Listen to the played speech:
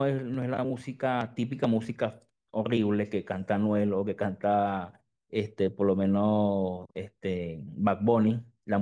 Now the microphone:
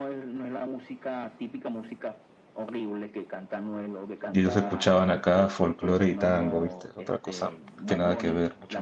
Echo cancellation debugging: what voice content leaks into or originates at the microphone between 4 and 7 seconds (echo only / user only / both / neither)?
both